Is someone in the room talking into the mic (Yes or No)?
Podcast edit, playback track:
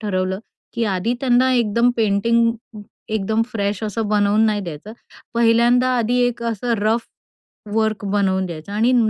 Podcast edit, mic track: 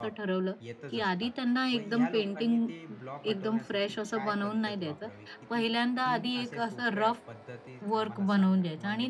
Yes